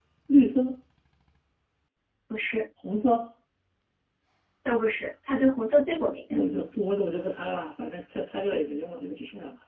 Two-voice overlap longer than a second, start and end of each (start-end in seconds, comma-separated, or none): none